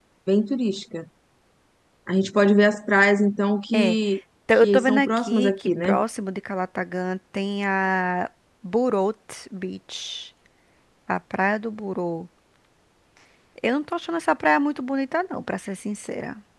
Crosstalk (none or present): present